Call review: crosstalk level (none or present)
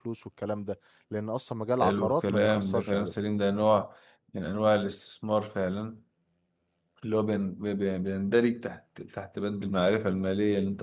present